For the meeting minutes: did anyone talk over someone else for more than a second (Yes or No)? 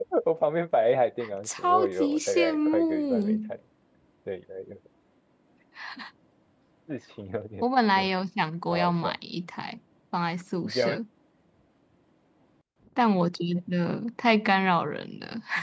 Yes